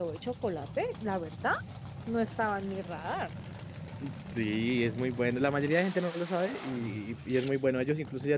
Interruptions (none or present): none